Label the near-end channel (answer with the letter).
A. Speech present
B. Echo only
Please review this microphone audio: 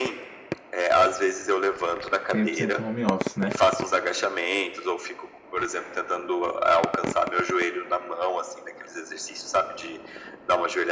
A